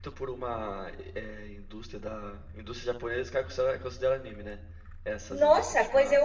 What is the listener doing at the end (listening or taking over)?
taking over